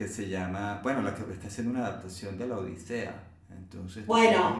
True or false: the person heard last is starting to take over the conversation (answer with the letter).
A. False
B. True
B